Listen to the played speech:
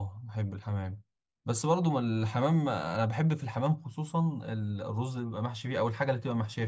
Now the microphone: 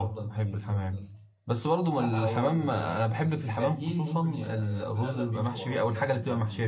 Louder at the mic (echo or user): echo